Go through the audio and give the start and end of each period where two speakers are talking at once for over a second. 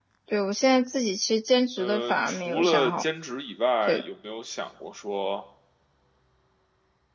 1.8-3.0

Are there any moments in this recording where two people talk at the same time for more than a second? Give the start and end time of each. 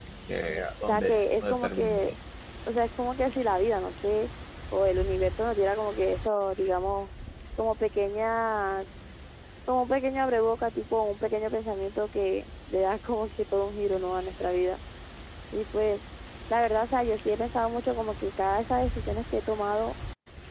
0.8-2.2

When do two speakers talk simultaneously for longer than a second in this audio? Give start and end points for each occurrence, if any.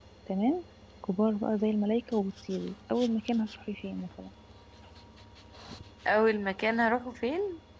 none

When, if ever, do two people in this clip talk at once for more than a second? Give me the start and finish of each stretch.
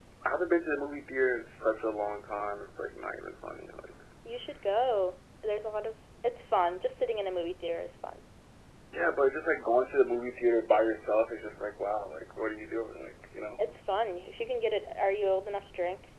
none

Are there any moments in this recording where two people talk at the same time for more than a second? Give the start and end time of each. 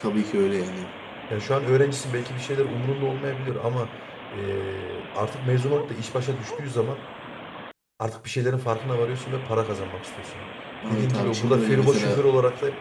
10.9-12.2

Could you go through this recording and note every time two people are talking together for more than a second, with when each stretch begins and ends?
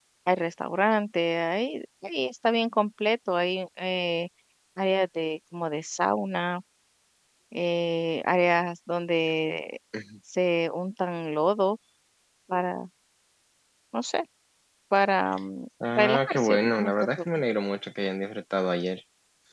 15.9-17.2

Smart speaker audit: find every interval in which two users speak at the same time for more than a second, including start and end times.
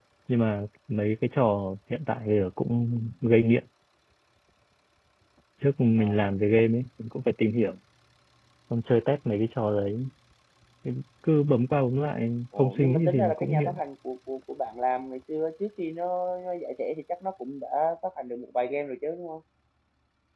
12.6-13.8

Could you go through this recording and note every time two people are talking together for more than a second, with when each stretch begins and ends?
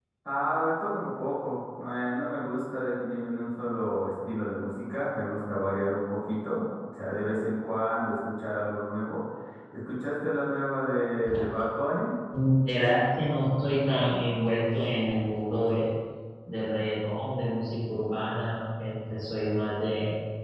none

